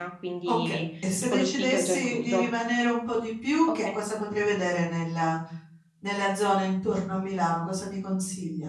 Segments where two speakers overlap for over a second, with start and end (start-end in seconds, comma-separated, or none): 1.3-2.5